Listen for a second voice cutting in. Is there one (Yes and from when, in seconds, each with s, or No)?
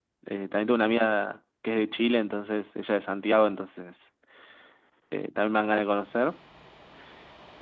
No